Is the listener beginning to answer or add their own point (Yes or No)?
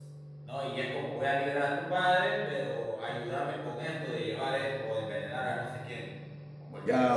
Yes